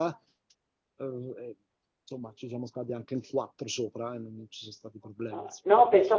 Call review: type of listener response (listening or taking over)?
taking over